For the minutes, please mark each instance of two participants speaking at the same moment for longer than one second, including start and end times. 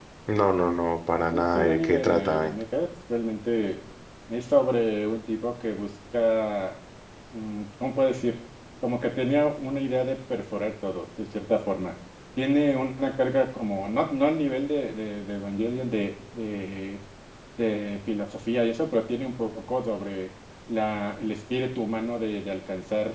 1.3-2.5

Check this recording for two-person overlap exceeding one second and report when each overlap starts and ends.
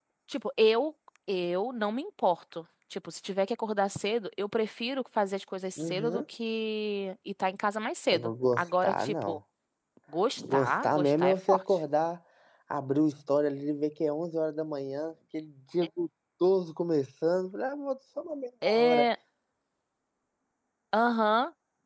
8.1-9.4, 10.4-11.6

